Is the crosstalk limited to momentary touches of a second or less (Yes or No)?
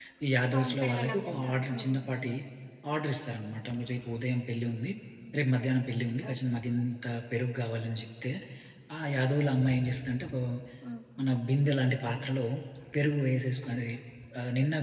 No